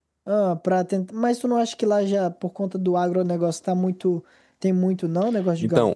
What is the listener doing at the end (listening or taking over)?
taking over